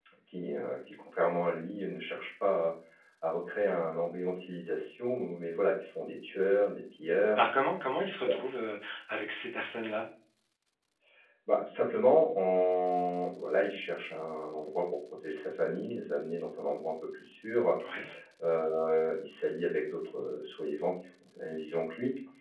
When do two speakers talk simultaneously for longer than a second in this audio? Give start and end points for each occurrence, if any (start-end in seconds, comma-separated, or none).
none